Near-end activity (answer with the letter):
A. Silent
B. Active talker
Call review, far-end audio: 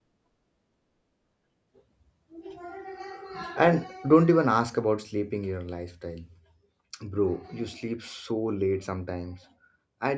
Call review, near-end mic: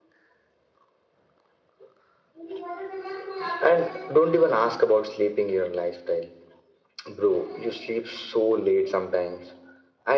A